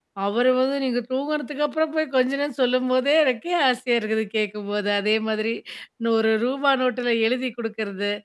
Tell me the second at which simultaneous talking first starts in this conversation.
none

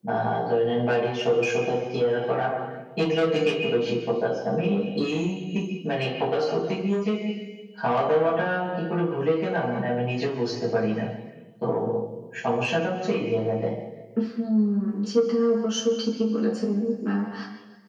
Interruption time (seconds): none

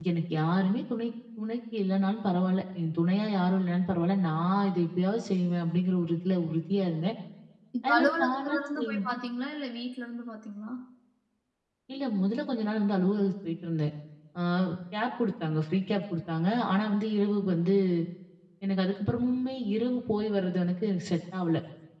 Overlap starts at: 7.8 s

